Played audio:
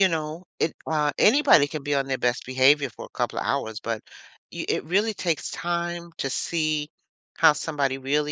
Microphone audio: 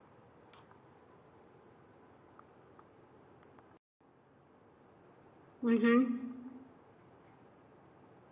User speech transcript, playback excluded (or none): Mhm.